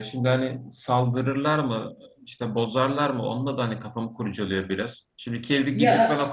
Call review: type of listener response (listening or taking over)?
listening